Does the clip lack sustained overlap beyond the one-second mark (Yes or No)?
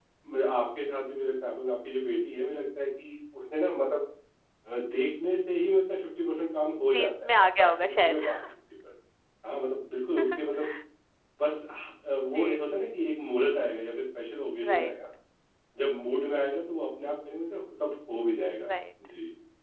No